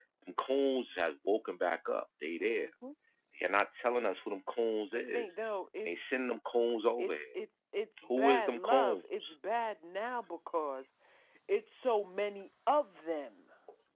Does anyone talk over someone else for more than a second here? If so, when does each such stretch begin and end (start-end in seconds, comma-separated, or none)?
8.1-9.3